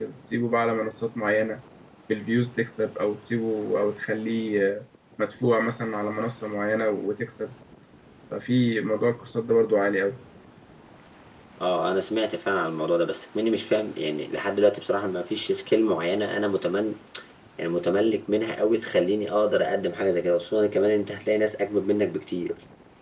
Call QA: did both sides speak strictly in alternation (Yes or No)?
Yes